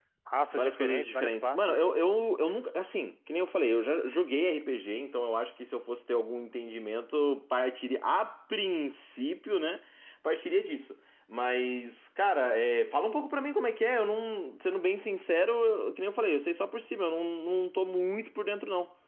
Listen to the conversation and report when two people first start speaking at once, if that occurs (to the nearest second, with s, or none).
1 s